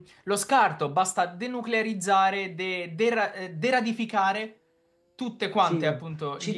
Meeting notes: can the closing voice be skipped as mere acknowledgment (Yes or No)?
No